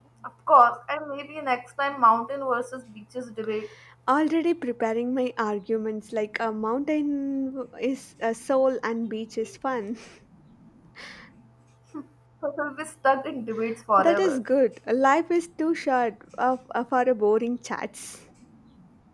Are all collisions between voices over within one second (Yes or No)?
Yes